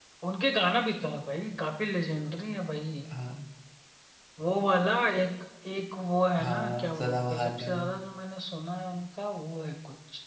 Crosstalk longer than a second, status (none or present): present